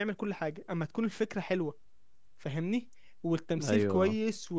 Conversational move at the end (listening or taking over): listening